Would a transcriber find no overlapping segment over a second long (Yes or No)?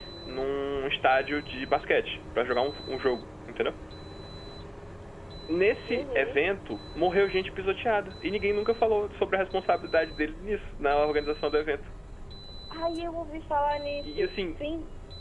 Yes